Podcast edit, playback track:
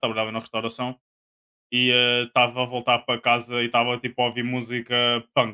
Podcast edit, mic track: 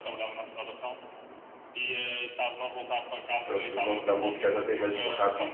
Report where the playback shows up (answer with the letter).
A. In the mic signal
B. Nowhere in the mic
A